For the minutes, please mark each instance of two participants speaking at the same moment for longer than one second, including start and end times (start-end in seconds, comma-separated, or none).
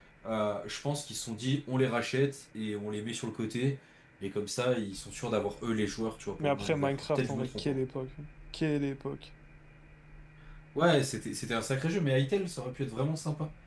6.4-7.8